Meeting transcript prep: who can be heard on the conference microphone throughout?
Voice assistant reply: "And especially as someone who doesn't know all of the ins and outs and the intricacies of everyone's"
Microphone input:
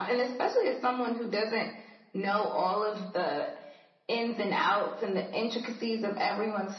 echo only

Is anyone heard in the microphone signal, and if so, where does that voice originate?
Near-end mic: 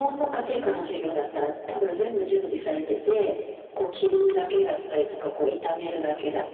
both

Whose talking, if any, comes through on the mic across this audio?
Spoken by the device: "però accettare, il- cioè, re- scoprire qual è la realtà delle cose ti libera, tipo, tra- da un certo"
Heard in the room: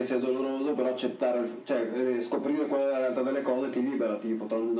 echo only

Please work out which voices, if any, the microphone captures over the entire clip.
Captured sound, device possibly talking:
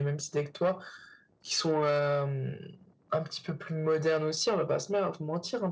echo only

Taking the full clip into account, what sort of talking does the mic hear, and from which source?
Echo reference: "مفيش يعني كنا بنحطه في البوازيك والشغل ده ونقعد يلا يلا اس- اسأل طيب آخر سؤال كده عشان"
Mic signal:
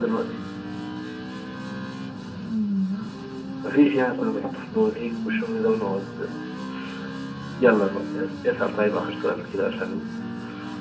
echo only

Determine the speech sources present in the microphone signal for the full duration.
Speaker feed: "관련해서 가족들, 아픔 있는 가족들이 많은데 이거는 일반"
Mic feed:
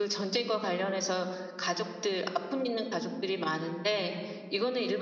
echo only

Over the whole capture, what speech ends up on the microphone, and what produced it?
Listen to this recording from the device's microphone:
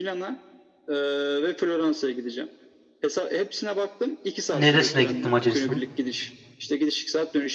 both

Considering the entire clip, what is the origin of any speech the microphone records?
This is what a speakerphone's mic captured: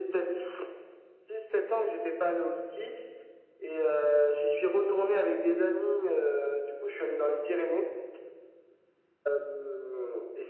echo only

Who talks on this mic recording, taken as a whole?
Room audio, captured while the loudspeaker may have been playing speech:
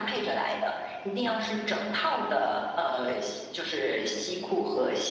echo only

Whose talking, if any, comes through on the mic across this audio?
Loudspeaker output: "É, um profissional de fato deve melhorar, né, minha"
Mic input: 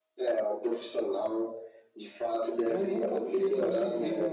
both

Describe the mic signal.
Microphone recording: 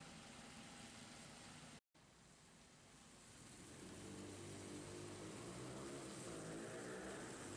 neither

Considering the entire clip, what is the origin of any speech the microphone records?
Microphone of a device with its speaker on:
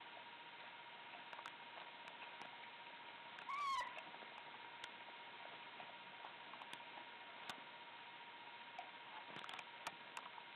neither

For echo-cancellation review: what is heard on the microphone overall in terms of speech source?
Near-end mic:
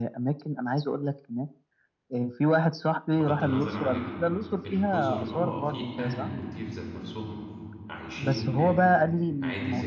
both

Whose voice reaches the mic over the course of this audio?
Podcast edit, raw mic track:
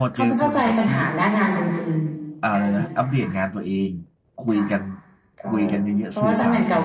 both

